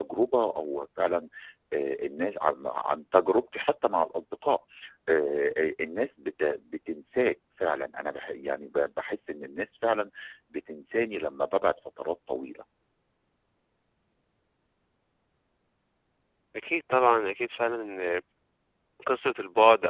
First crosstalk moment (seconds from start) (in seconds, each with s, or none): none